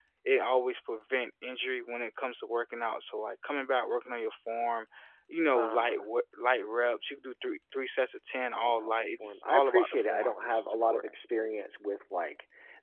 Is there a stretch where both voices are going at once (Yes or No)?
Yes